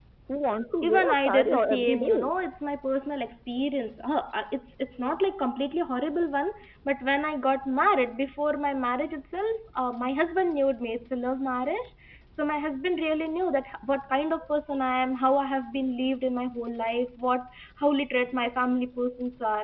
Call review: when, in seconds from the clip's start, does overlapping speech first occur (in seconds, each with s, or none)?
0.8 s